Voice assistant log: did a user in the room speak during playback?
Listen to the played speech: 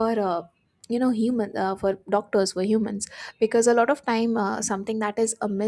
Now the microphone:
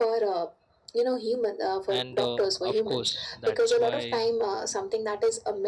Yes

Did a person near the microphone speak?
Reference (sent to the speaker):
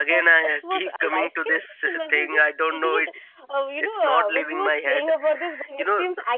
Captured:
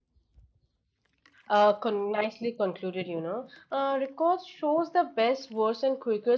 Yes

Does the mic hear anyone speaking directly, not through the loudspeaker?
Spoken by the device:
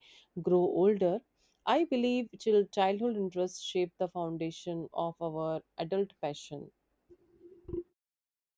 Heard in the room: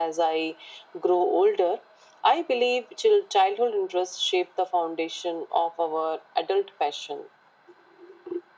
No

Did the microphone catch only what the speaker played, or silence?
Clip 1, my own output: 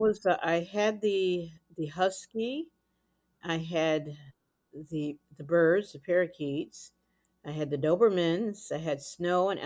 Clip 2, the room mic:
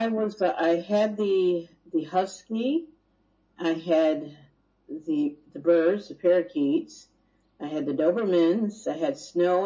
Yes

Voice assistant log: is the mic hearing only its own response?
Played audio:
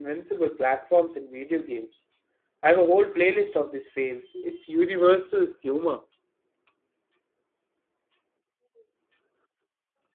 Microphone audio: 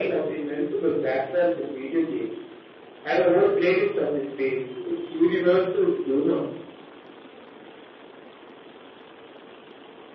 Yes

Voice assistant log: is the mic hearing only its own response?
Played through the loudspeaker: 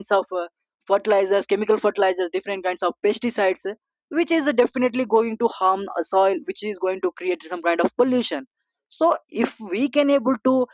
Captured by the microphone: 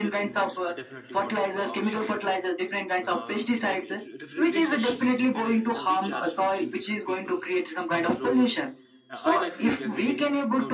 No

